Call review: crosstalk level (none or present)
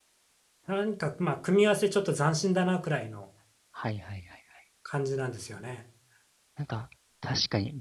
none